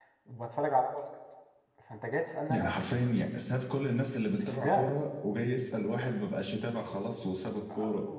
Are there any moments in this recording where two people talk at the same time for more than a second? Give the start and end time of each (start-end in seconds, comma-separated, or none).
none